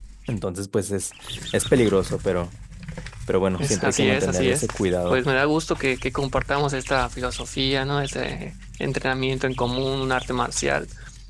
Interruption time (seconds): 3.6 s

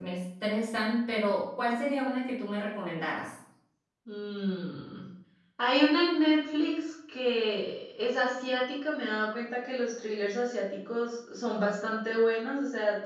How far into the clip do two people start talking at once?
none

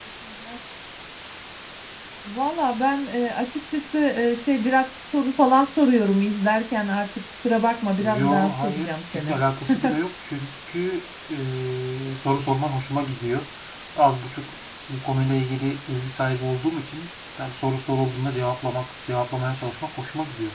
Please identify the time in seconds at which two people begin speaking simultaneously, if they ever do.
8.0 s

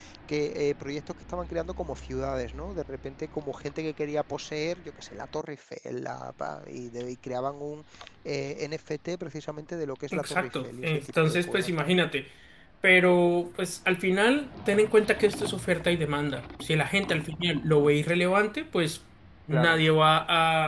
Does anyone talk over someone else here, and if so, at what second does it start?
10.1 s

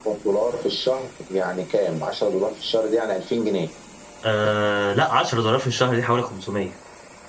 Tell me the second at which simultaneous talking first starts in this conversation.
none

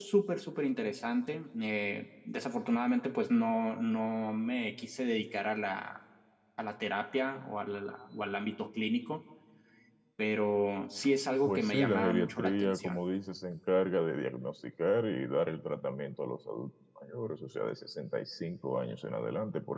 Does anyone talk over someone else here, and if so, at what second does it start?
11.5 s

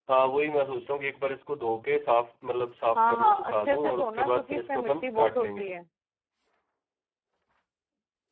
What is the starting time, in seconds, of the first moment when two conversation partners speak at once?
3.0 s

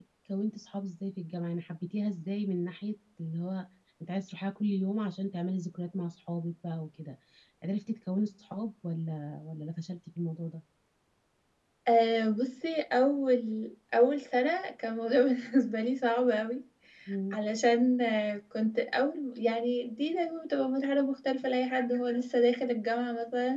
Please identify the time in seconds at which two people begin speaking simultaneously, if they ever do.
none

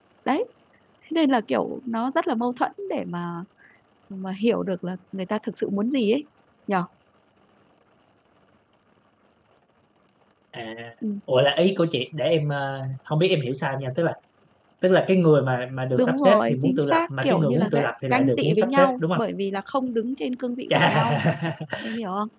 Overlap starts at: 16.0 s

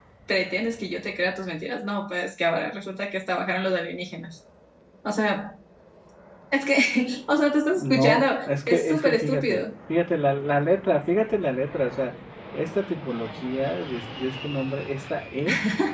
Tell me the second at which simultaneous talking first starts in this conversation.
7.8 s

